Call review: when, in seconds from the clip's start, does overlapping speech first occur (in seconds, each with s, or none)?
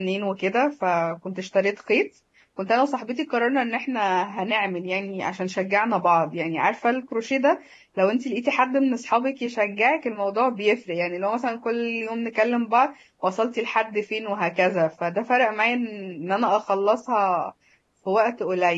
none